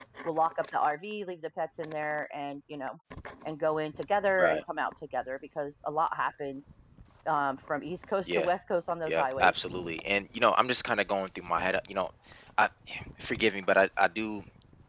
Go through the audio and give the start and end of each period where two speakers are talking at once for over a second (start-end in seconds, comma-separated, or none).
none